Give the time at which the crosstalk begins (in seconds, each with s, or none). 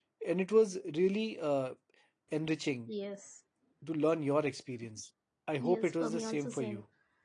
5.6 s